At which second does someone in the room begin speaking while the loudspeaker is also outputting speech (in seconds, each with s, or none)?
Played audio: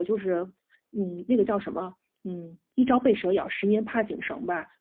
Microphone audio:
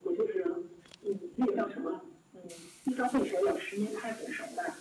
none